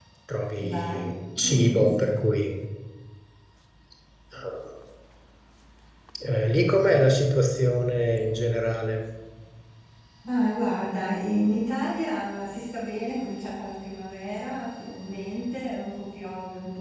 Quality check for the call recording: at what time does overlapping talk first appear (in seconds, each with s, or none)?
0.6 s